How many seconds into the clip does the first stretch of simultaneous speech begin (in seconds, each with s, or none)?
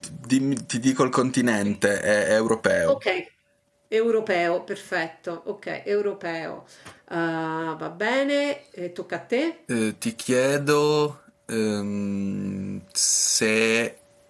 none